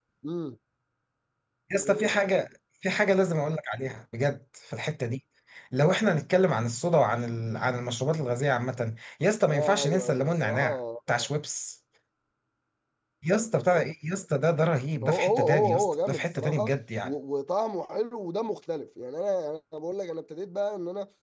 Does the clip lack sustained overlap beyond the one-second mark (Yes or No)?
No